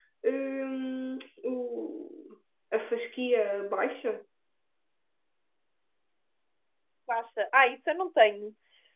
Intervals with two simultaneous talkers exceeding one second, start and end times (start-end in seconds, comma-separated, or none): none